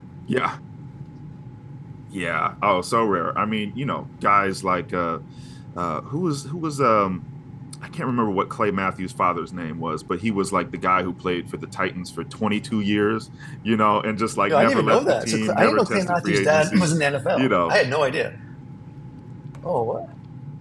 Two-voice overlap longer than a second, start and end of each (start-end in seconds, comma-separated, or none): 14.5-16.9